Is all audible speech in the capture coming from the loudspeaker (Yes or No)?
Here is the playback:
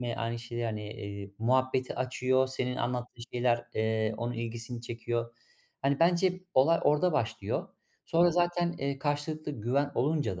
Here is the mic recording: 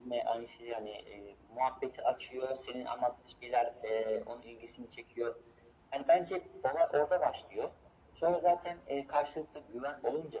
Yes